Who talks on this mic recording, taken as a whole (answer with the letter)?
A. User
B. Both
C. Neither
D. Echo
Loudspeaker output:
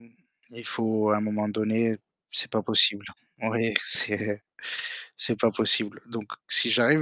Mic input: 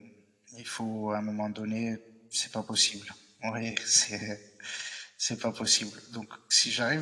D